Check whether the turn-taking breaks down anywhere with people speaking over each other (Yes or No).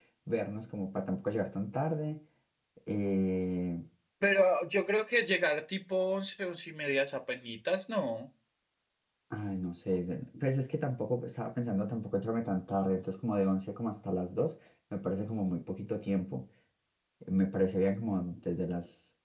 No